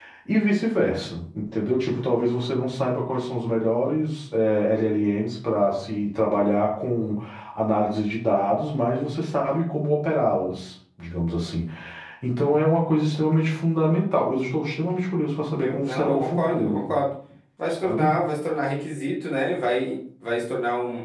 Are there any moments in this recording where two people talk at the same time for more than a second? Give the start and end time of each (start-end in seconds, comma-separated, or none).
15.6-16.8